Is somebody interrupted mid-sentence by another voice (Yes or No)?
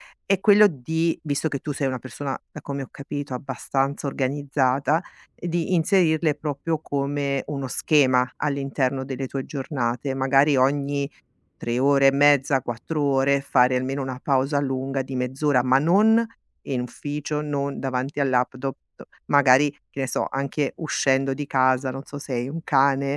No